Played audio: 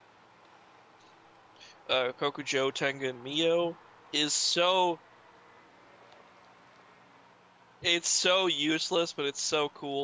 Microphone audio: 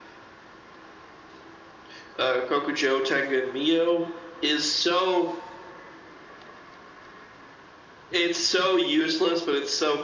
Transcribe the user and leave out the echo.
none

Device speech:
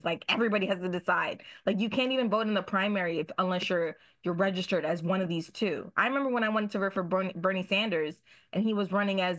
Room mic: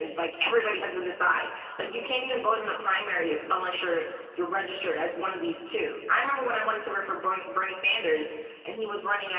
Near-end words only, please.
none

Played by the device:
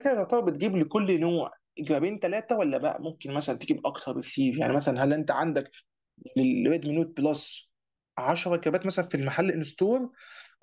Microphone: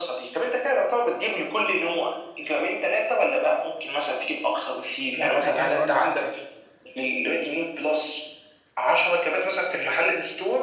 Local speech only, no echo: لسه جاي بقول لك

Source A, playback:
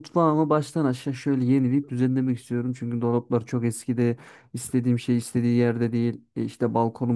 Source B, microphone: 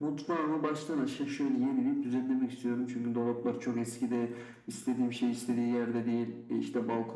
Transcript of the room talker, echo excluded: none

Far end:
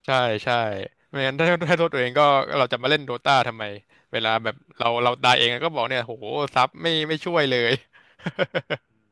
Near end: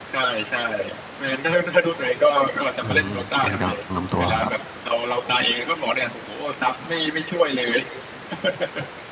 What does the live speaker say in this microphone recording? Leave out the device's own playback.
อืมแกนกลางลำตัวครับ

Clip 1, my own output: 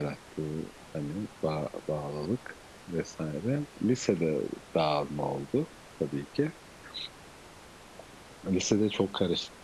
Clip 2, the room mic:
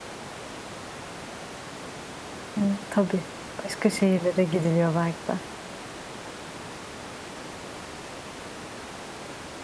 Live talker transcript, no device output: Yani, hı, tabii. Başka şehirlere gidiliyor belki de.

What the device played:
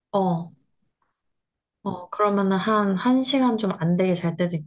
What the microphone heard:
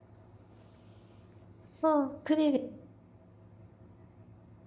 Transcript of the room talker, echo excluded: 아, 큰일이야.

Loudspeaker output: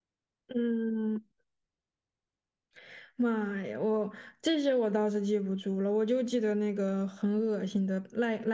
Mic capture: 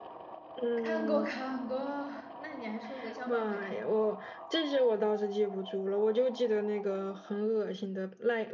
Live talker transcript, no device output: 看过看过，那你还说韦小宝我也看过，

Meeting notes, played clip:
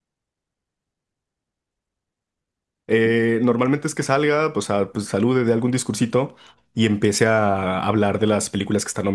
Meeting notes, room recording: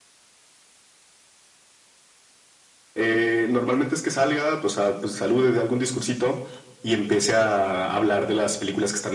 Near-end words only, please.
none

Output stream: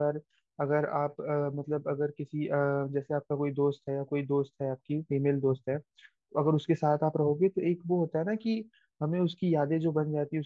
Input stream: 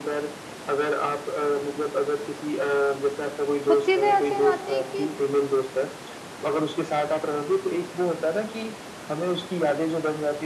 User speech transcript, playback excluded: कुछ चीजें ऐसी हो जाती है कि

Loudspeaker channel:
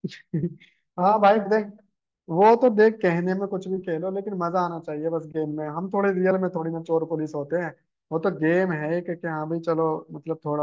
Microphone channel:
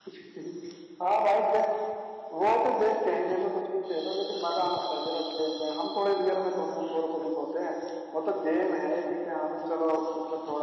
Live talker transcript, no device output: none

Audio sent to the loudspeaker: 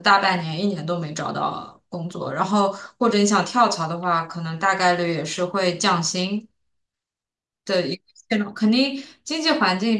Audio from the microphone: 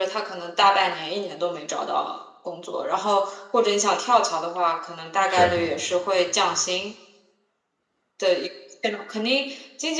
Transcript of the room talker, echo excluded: 是，

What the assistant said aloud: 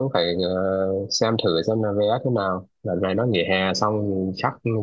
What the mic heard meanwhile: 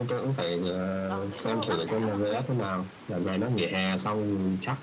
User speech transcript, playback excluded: Còn kiểu Bắc đảo là nguyên

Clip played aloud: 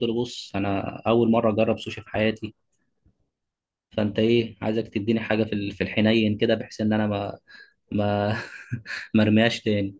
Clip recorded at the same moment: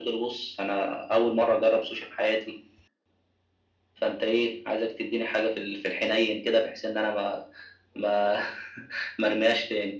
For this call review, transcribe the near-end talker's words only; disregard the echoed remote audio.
none

